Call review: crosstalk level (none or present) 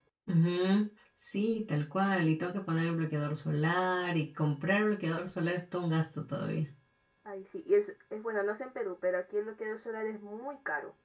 none